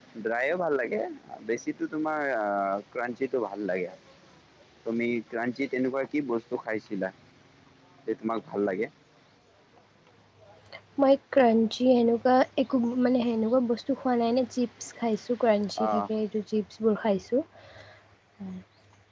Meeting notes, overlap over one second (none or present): none